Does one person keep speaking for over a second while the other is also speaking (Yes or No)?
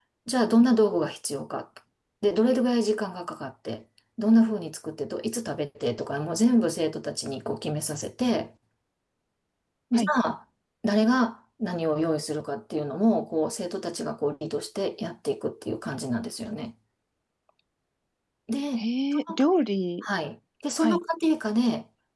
No